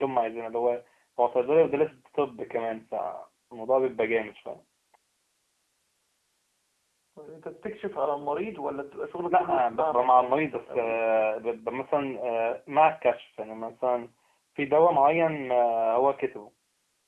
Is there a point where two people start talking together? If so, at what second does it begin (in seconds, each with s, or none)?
9.3 s